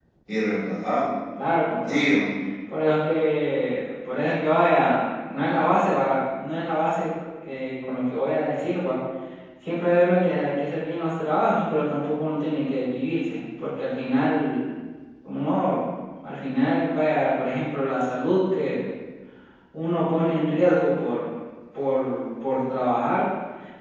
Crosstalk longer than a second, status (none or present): none